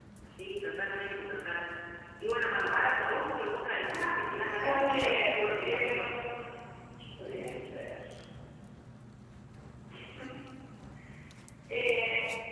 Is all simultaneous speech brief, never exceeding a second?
No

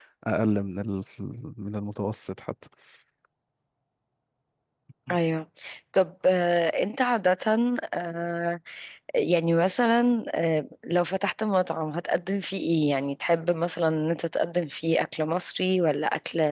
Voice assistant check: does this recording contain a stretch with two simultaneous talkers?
No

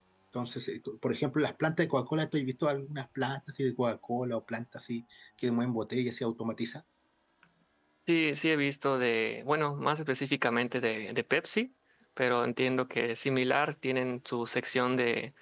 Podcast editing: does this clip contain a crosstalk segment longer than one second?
No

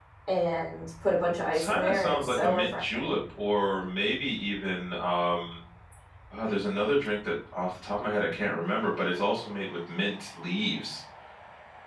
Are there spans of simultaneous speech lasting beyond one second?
Yes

